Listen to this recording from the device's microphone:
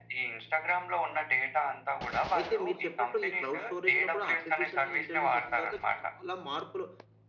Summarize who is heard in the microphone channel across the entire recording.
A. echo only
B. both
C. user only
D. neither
B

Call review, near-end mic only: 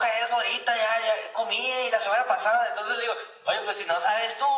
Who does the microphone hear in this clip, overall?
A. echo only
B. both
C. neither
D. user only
A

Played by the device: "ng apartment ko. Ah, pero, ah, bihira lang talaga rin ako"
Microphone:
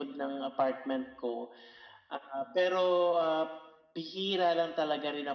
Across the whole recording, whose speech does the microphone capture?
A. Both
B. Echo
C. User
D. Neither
B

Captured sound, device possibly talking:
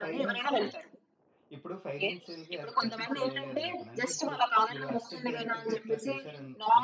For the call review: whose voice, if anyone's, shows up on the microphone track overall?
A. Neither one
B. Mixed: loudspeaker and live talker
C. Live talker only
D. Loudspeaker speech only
B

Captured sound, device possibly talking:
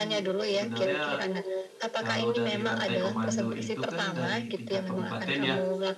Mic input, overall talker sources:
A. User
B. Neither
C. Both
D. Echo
C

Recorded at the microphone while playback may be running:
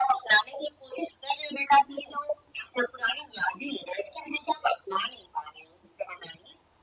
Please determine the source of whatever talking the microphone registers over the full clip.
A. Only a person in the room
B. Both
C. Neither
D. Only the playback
D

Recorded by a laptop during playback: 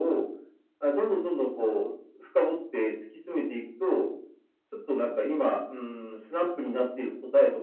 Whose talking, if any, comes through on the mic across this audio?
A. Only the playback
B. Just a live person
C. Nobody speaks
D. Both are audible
A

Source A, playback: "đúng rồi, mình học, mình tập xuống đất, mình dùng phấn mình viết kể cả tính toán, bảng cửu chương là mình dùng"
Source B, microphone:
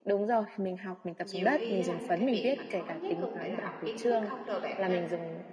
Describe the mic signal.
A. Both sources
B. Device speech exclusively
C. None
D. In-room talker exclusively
A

